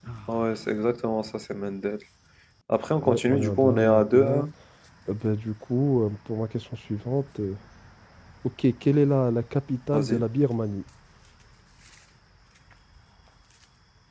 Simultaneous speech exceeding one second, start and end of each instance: 3.0-4.5

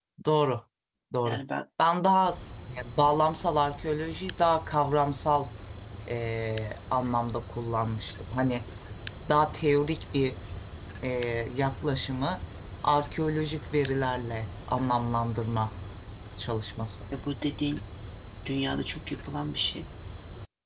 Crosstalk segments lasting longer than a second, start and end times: none

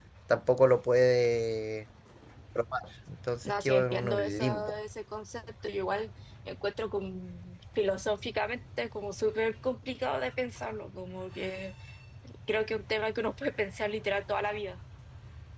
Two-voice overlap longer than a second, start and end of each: 3.4-4.8

